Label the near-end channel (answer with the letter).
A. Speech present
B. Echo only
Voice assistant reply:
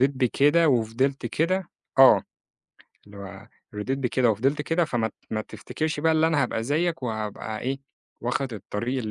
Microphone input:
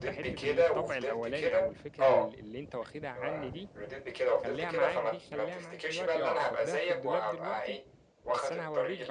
A